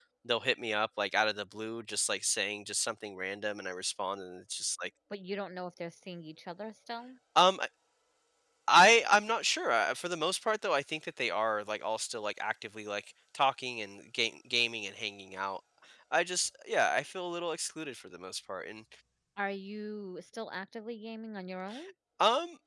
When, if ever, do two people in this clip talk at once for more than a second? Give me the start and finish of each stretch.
none

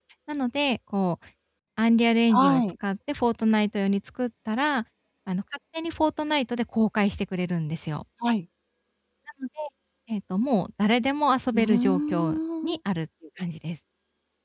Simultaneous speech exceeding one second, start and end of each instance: 11.5-12.8

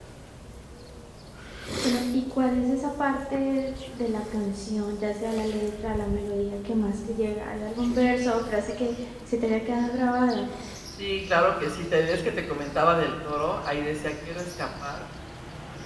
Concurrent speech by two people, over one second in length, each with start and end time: none

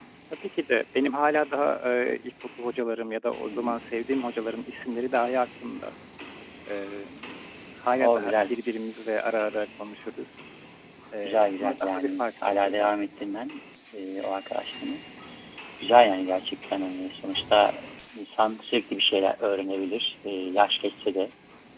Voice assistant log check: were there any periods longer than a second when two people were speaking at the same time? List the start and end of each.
11.2-13.3

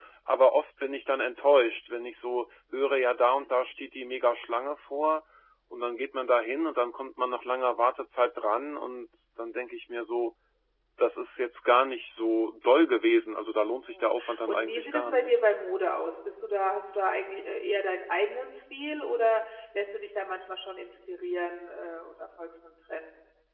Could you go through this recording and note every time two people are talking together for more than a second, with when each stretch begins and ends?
13.9-15.3

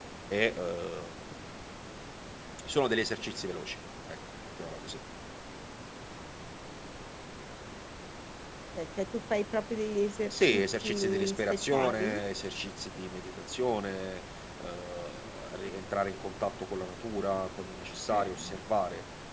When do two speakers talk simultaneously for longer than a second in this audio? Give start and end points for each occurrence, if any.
10.3-12.2

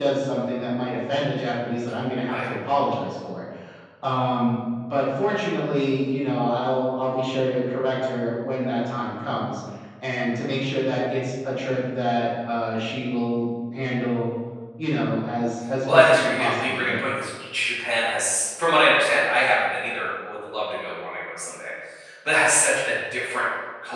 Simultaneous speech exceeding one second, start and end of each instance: 15.8-17.1

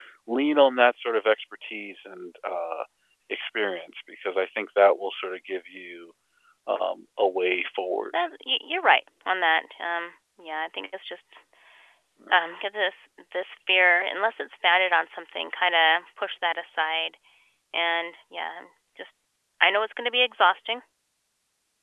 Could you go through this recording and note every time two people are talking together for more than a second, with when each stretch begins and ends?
none

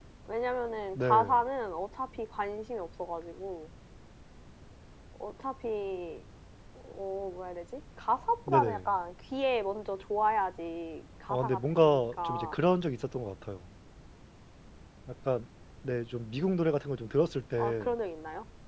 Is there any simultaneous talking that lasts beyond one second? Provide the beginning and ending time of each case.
11.3-12.5

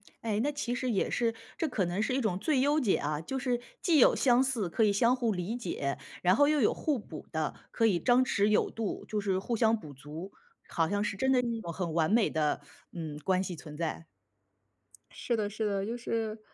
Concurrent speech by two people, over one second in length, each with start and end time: none

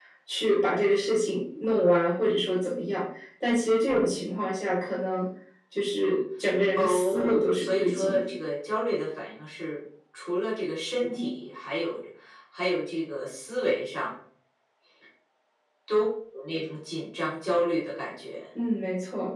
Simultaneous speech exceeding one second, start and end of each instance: 6.8-8.3

